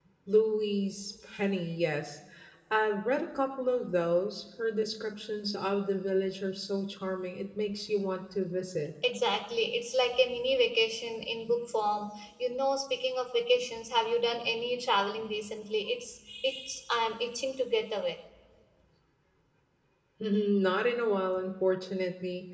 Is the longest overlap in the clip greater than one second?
No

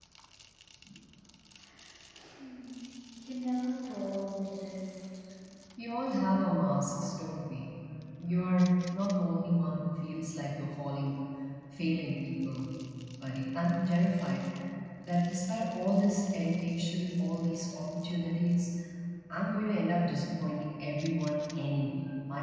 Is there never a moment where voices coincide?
Yes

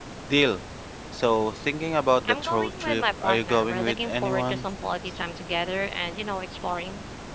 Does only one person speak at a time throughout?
No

